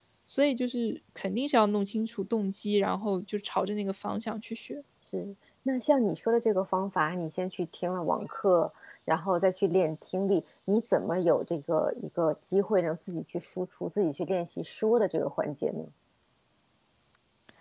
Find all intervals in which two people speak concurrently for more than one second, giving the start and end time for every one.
none

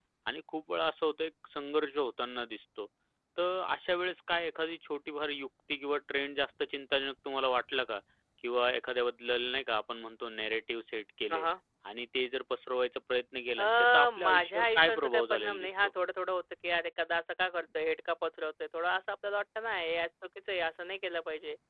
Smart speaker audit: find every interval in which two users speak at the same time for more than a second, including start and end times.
13.6-15.9

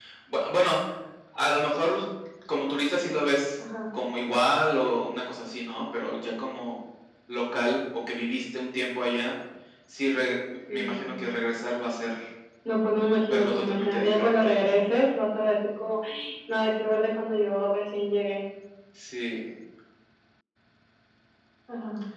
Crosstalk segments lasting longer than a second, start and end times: 13.2-14.6

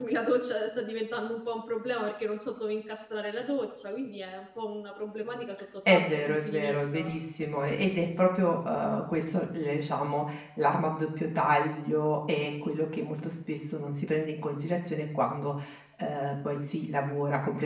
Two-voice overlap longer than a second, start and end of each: 5.9-7.1

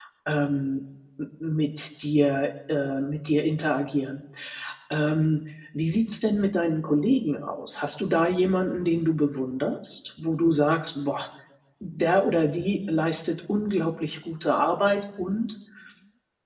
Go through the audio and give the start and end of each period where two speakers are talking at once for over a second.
none

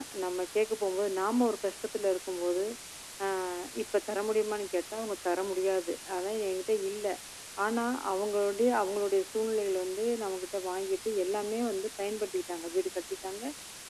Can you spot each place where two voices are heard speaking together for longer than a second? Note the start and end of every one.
none

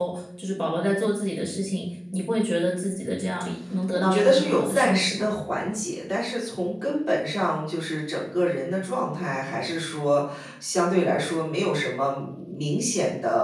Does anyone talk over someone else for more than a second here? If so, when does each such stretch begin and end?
3.9-5.3

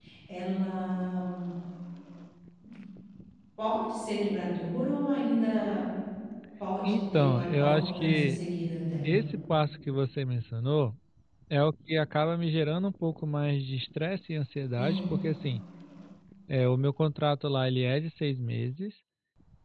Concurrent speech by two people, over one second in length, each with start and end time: 6.8-8.4

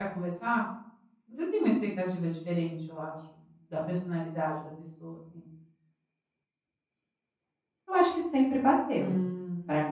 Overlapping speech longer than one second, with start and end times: none

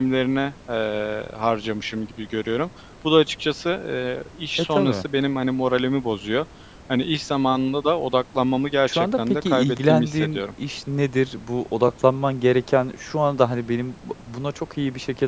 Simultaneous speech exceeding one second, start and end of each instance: 8.9-10.4

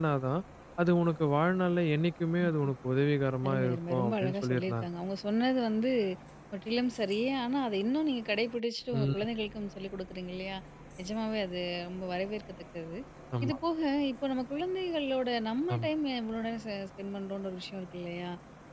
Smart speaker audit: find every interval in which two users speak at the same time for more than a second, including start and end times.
3.5-4.9

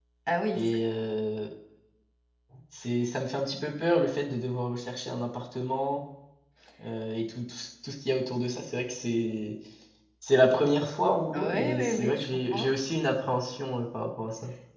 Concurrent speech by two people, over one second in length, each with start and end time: 11.3-12.7

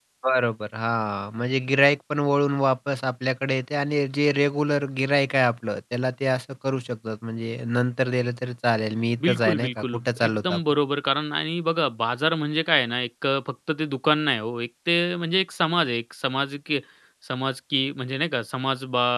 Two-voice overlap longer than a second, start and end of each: 9.2-10.6

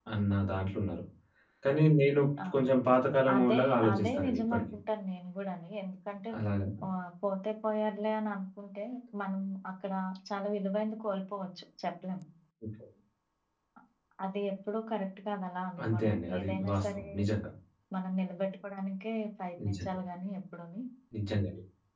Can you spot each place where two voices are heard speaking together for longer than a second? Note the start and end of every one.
3.3-4.6, 15.8-17.1

